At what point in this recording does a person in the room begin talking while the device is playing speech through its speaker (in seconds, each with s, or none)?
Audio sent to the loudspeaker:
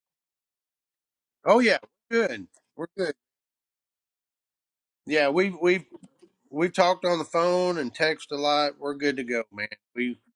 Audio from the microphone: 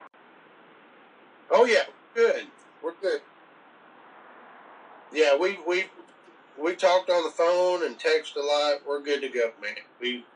none